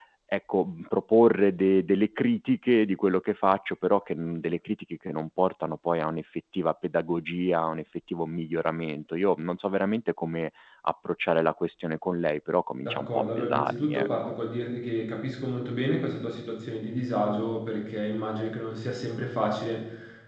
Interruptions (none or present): present